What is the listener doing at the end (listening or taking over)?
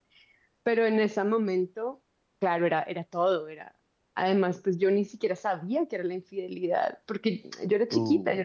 listening